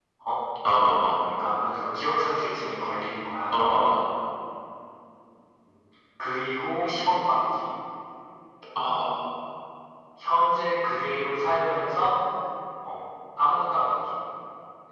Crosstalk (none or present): none